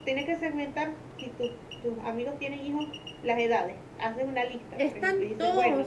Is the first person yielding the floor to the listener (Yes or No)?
Yes